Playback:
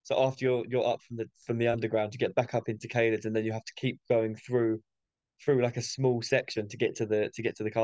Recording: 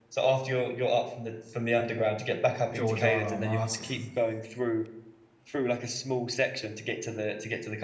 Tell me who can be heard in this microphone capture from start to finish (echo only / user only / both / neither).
both